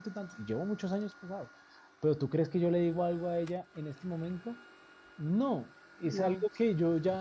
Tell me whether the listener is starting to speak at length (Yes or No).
No